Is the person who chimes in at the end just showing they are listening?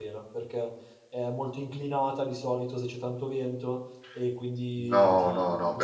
No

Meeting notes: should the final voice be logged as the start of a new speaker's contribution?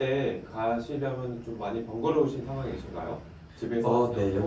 Yes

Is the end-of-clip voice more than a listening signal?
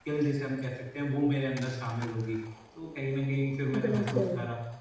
No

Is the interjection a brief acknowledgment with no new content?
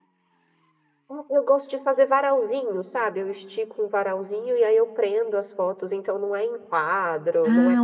No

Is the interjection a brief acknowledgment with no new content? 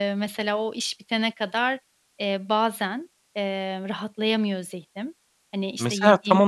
No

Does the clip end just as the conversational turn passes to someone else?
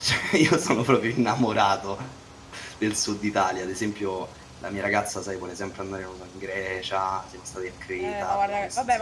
Yes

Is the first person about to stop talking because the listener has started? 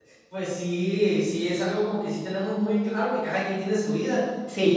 No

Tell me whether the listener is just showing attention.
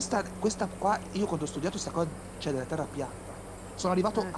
Yes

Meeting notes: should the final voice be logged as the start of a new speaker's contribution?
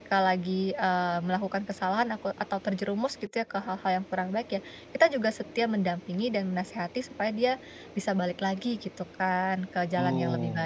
Yes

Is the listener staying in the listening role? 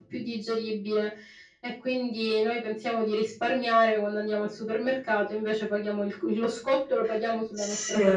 No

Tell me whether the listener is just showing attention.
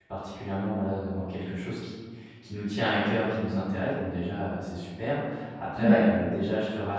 Yes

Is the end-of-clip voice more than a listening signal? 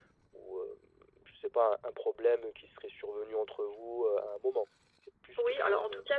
Yes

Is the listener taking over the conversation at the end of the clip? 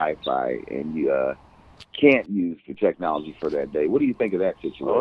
Yes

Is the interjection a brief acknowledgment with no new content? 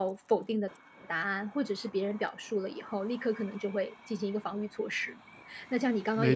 No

